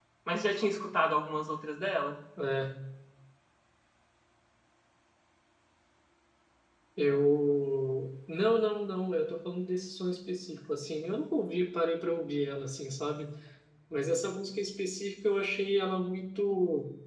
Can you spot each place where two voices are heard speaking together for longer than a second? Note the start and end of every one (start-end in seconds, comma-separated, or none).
none